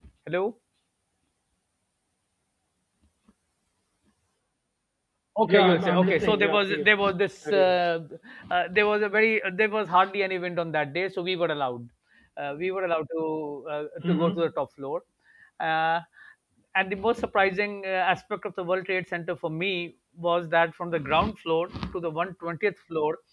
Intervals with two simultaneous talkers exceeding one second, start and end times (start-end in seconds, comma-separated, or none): 5.5-6.8